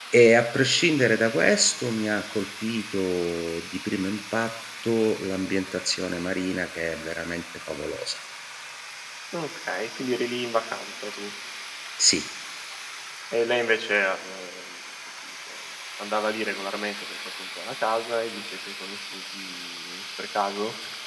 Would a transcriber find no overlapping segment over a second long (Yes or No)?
Yes